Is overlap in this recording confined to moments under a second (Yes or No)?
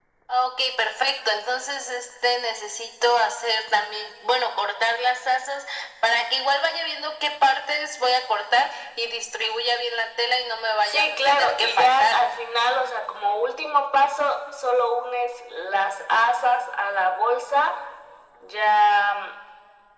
No